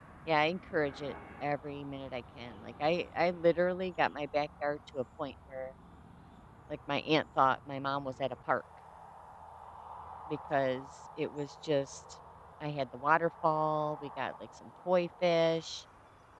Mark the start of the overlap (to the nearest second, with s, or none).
none